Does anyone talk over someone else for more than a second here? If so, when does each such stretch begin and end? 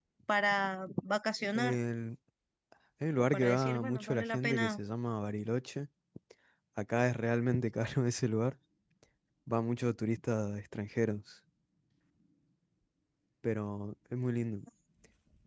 3.3-4.8

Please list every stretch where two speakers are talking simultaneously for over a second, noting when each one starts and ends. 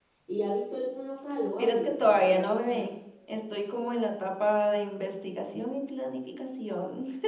1.6-2.9

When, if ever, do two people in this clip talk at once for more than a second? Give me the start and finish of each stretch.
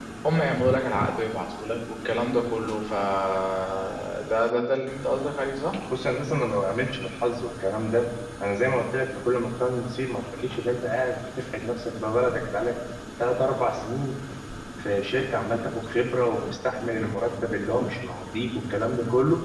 none

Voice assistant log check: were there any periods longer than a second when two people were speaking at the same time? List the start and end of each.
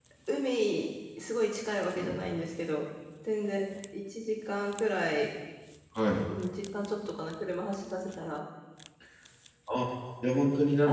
none

